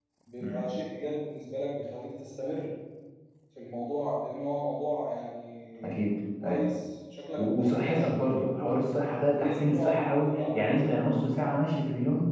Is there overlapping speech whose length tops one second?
Yes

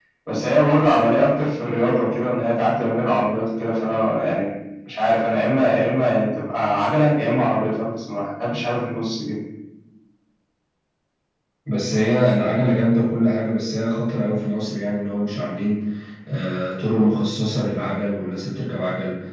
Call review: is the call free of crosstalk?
Yes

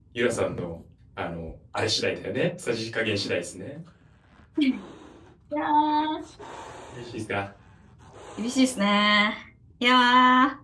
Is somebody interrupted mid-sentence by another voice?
No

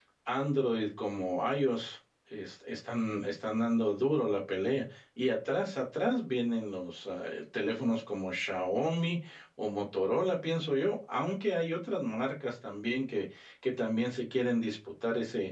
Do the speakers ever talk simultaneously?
No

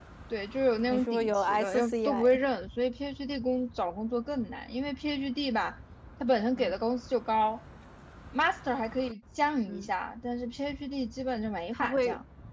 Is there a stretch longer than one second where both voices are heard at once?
Yes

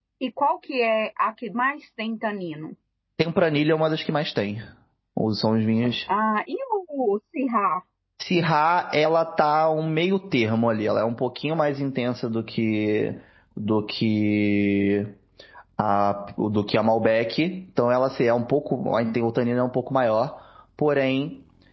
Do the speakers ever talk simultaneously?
No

